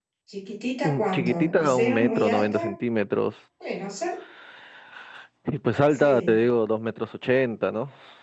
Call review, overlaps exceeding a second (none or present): present